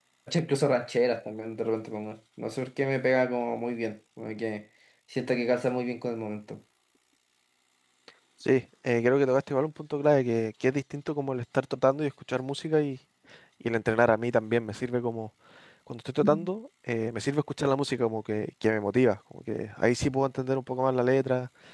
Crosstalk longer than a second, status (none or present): none